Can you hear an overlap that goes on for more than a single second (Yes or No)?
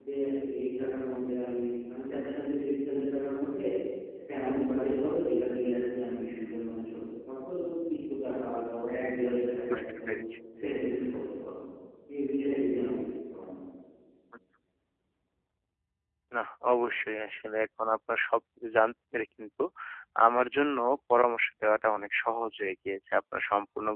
No